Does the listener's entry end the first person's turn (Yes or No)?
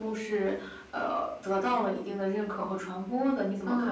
Yes